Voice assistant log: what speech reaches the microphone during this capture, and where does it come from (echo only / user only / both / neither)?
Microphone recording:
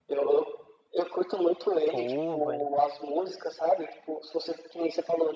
both